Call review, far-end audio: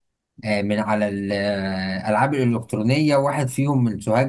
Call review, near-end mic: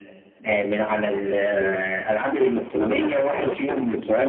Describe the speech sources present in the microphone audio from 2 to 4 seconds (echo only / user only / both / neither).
both